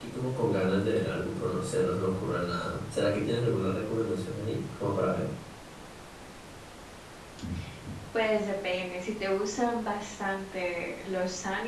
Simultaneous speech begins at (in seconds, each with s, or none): none